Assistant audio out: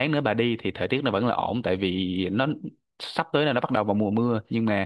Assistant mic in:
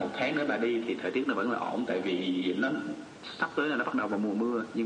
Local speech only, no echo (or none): none